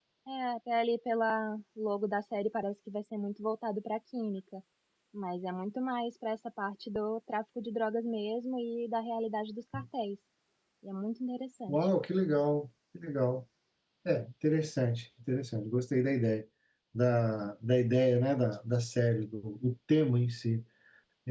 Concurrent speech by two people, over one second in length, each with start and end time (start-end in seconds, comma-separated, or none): none